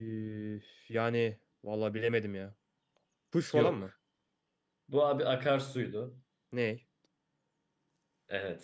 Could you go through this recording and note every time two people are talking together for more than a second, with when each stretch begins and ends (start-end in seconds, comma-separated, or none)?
none